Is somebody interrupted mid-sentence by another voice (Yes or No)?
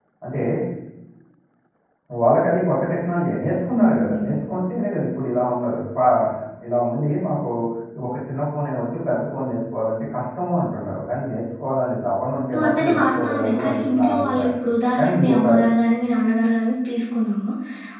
Yes